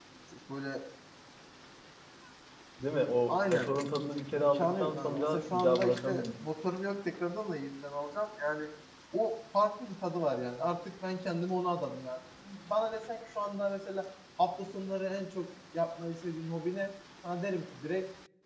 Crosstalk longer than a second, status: present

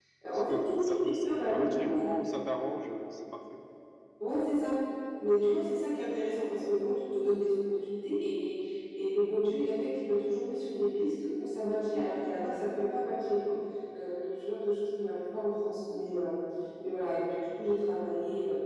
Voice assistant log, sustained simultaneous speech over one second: present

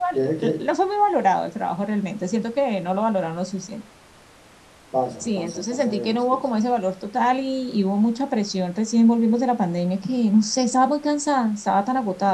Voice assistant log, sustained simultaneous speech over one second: present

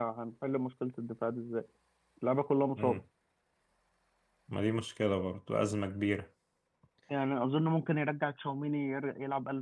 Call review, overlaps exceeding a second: none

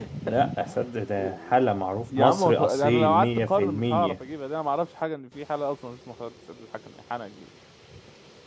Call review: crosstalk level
present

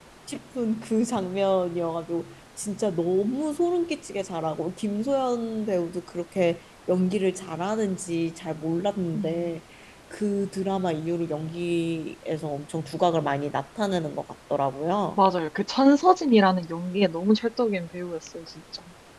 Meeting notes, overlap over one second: none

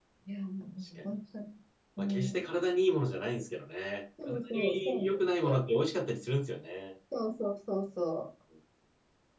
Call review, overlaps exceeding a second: present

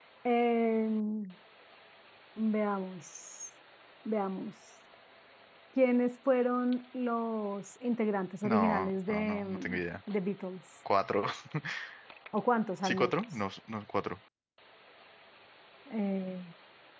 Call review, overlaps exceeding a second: present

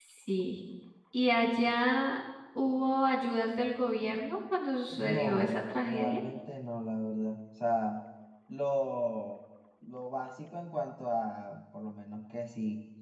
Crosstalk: present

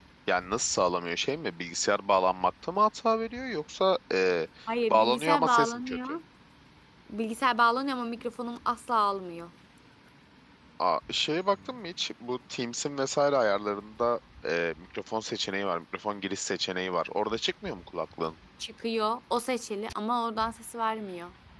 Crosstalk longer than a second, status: present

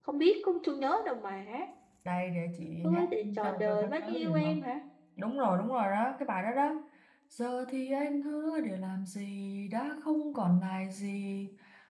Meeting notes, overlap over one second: present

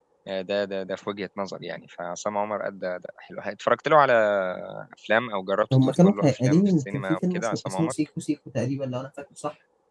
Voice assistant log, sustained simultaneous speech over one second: present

